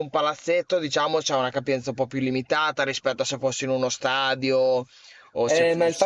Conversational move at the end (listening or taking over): taking over